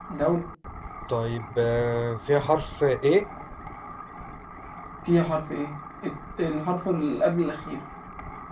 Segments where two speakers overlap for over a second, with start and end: none

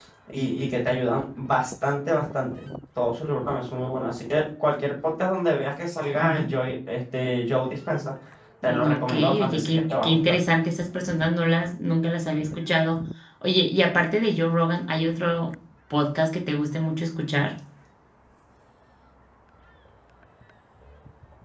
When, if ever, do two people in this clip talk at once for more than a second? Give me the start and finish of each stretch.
8.6-10.2

